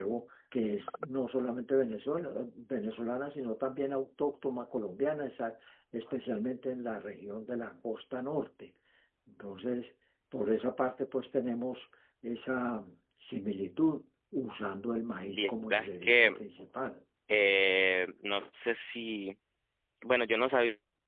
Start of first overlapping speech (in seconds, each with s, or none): 15.2 s